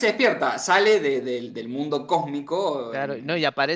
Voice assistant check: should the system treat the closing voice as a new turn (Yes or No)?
Yes